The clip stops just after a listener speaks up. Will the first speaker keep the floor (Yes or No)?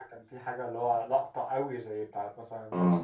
No